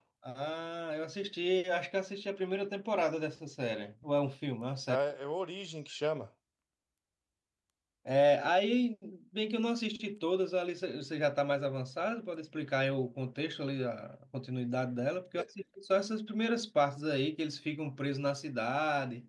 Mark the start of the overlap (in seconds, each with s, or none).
none